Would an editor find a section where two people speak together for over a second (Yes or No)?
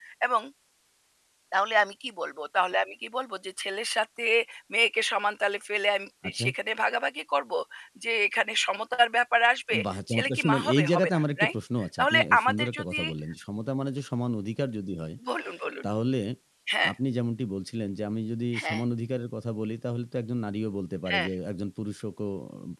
Yes